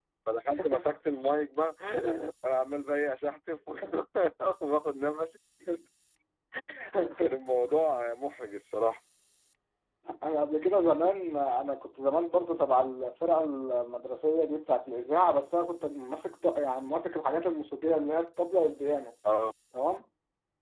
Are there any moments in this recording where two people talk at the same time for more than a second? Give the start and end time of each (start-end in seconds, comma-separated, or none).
none